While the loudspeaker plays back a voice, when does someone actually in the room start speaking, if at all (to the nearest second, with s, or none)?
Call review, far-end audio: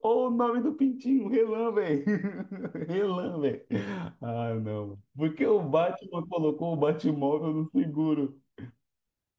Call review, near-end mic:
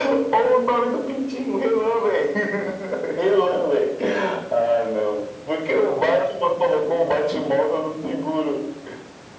none